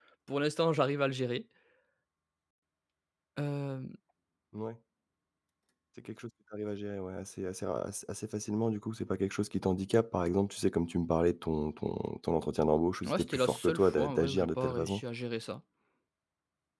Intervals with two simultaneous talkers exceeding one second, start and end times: 13.0-15.0

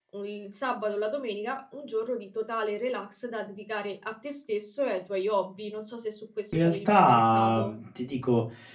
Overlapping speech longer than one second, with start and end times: 6.5-7.7

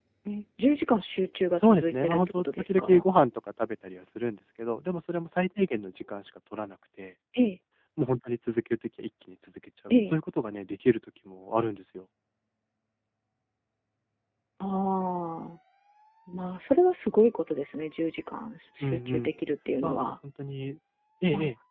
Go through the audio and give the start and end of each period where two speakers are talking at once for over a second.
1.6-3.0

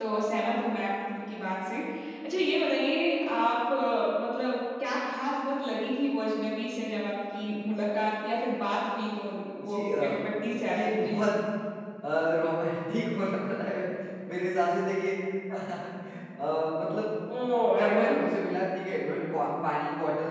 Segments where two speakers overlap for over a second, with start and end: none

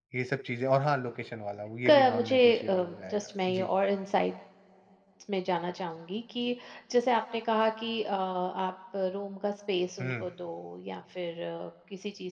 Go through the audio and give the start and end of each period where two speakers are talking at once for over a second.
1.9-3.7

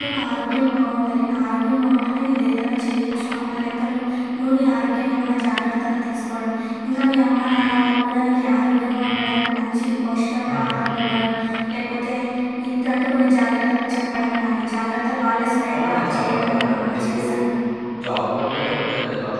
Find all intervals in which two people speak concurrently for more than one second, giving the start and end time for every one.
15.7-17.2

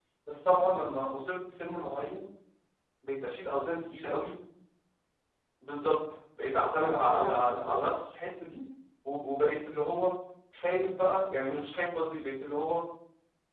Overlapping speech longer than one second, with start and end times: 6.6-7.8

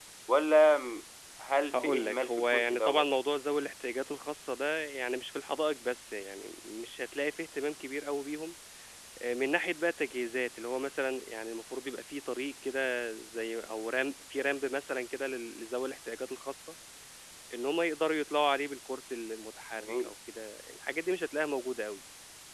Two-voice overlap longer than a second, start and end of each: 1.7-3.0

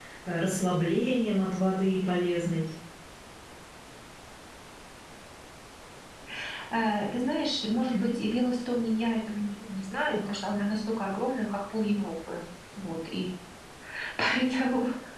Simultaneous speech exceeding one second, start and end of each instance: none

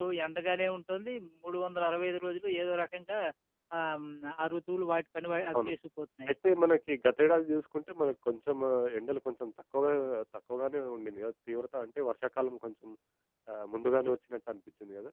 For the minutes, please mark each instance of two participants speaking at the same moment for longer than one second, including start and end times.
none

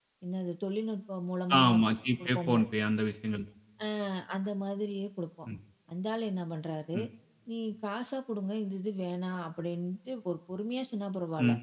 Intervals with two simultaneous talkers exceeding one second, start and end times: none

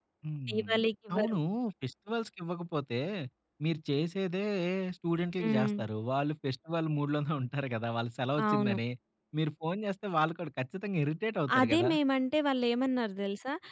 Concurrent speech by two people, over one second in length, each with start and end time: none

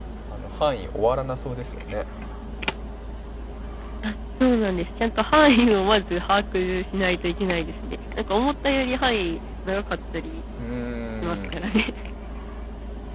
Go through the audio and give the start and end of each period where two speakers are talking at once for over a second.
none

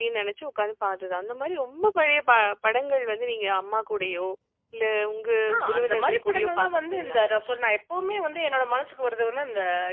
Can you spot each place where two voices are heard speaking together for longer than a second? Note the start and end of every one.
5.7-7.2

